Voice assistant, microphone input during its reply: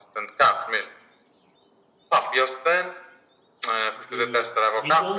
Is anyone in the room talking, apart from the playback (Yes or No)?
Yes